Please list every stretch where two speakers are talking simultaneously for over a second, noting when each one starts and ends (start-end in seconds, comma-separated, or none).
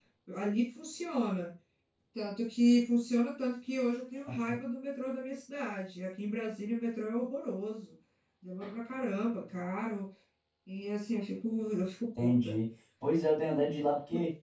none